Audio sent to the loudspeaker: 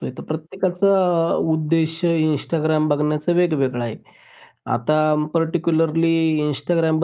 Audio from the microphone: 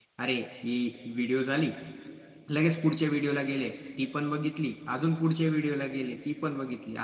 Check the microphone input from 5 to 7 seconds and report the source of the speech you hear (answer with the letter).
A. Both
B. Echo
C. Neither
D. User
D